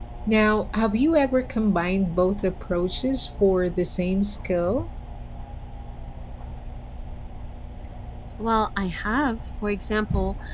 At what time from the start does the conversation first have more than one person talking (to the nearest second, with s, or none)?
none